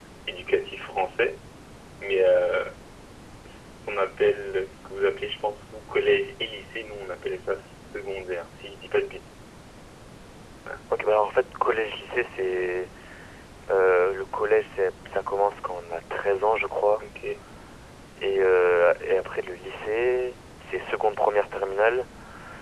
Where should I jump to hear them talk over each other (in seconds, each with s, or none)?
none